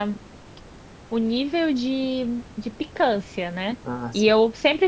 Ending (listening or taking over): listening